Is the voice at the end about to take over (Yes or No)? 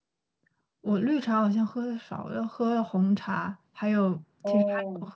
No